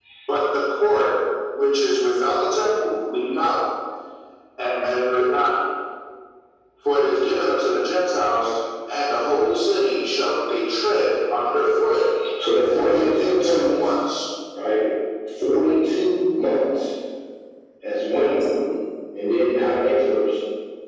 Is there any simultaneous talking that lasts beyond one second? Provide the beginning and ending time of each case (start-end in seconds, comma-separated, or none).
12.6-13.9